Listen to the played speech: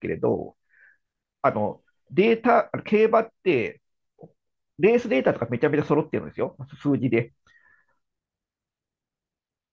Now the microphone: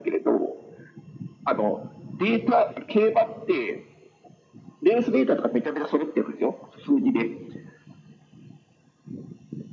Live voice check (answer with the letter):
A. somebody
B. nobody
B